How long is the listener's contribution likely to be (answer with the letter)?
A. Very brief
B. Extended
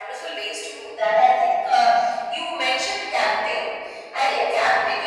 A